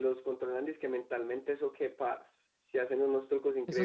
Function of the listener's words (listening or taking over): taking over